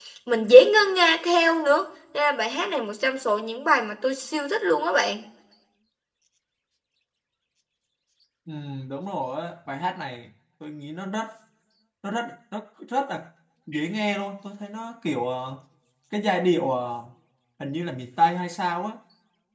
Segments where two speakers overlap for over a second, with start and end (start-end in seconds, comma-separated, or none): none